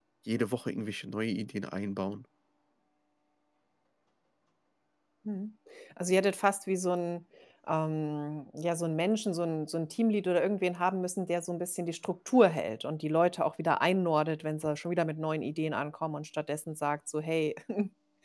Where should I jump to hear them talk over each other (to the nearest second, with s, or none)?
none